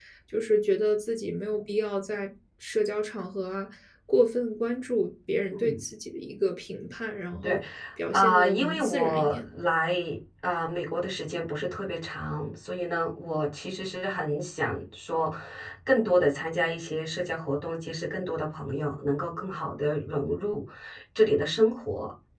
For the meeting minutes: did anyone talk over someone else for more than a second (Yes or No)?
Yes